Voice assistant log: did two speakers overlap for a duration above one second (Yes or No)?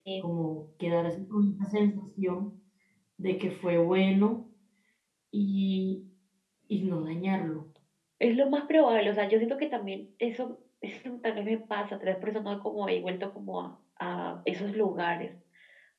No